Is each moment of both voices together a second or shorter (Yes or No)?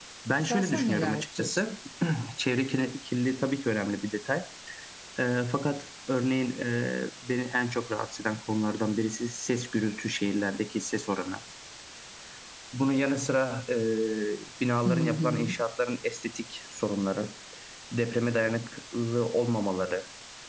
No